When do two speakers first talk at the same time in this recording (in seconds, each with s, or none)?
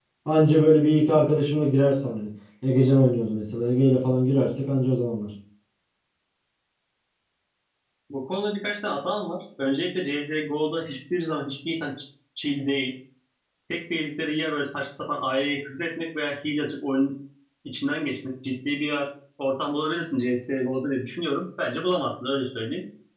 none